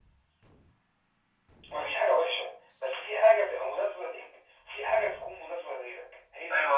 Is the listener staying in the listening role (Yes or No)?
No